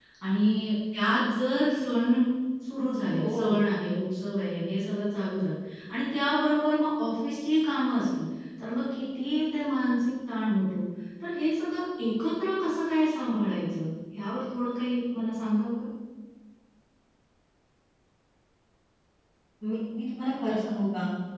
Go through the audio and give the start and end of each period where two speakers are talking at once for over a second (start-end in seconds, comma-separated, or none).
none